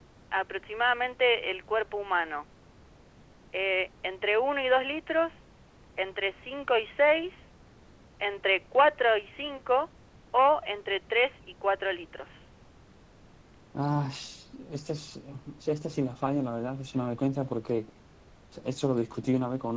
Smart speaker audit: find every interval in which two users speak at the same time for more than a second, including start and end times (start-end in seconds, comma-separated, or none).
none